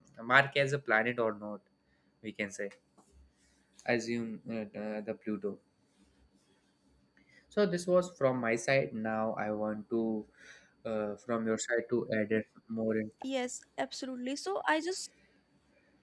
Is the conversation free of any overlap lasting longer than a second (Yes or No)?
Yes